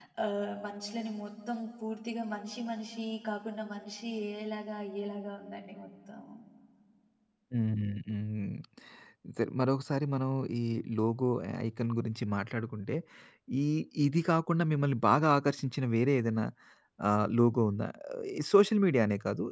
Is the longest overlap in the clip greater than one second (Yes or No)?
No